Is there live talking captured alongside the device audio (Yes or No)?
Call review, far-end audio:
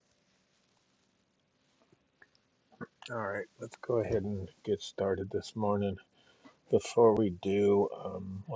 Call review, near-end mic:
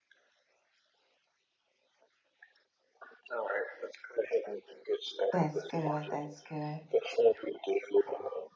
Yes